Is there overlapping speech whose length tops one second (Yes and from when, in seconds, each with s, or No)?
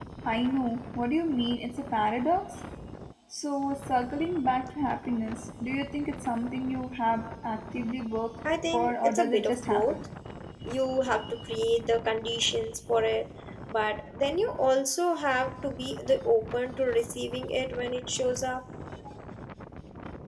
Yes, from 8.7 s